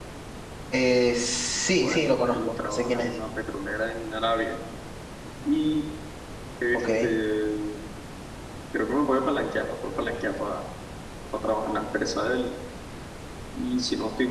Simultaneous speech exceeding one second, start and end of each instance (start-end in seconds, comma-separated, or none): 1.8-3.1